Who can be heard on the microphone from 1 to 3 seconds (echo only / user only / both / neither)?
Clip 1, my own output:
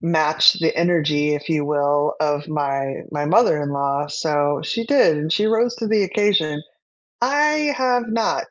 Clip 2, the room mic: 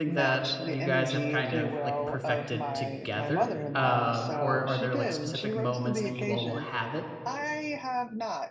both